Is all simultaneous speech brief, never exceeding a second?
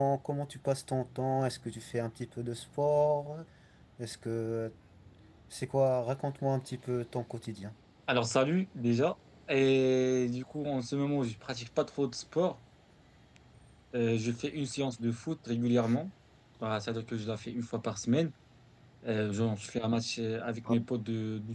Yes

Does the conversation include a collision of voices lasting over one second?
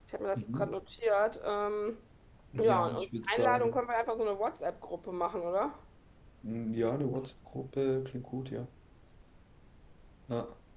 Yes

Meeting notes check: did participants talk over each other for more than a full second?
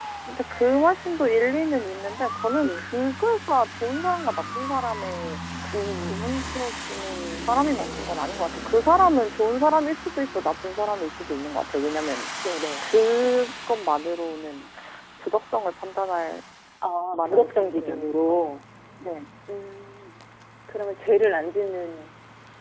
Yes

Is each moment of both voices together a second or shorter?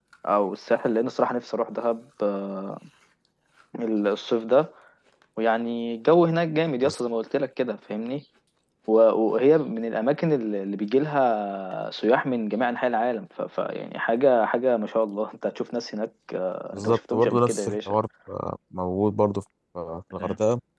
No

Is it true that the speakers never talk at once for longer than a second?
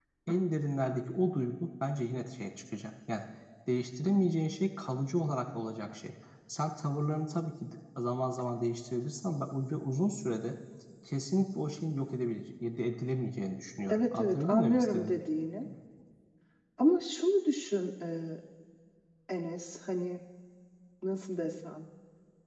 No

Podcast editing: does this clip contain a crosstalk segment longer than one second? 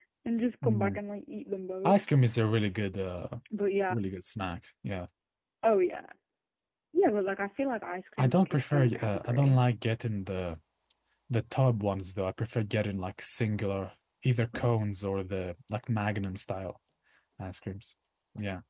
Yes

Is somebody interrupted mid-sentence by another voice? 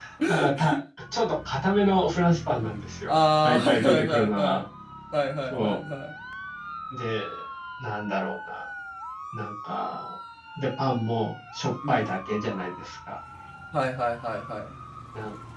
Yes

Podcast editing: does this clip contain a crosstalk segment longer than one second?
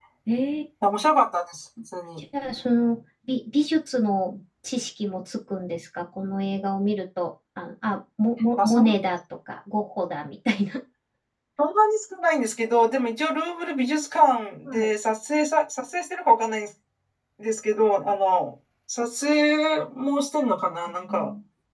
No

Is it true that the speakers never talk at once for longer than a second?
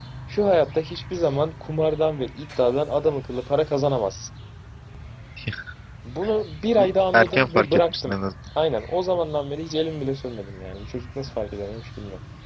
No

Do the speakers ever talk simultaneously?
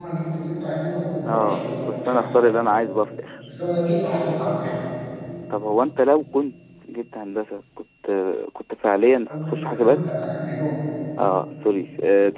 Yes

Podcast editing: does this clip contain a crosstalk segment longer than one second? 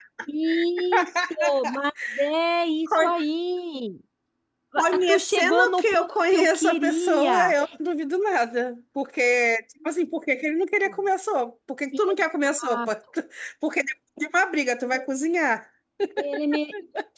Yes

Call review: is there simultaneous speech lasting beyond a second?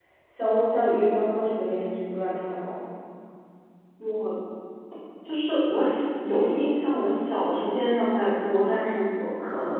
No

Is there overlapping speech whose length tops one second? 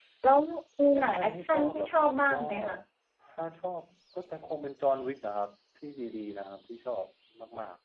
Yes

